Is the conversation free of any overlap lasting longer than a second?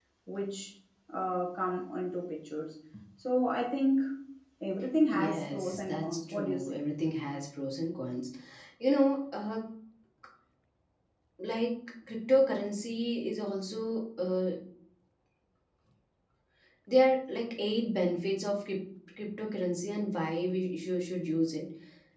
No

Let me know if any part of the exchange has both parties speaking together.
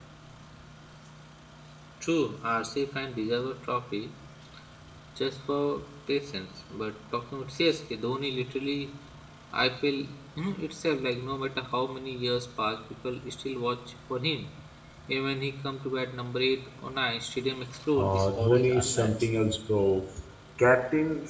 Yes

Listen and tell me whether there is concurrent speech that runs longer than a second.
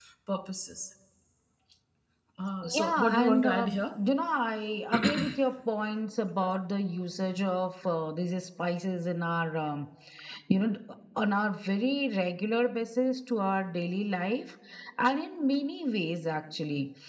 Yes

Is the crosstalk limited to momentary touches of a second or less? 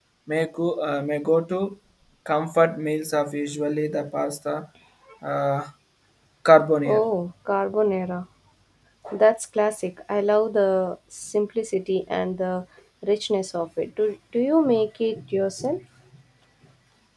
Yes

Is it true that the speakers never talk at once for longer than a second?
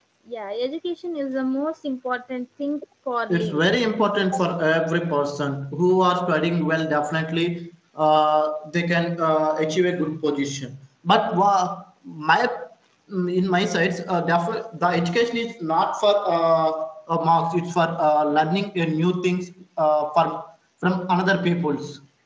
Yes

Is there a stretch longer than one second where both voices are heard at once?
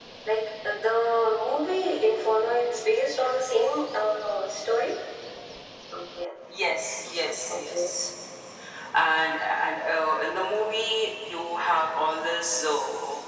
No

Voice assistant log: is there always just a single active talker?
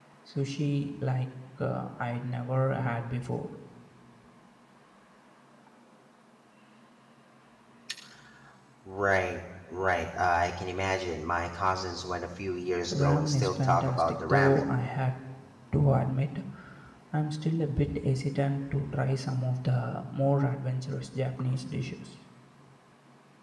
No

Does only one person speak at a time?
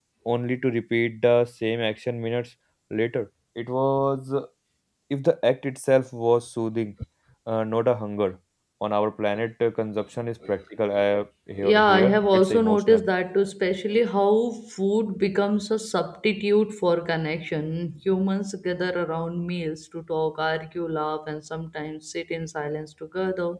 No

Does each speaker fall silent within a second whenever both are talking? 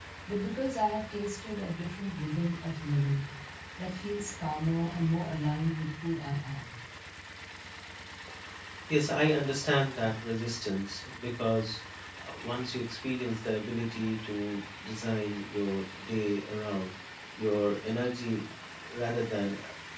Yes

